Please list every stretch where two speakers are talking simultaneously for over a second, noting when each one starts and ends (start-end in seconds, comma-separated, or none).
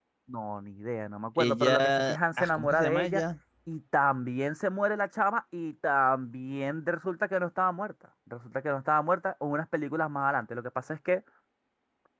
1.4-3.2